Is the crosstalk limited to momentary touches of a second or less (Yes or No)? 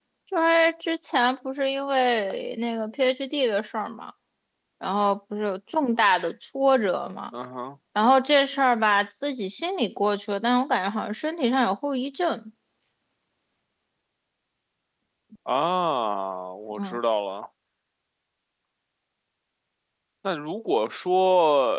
Yes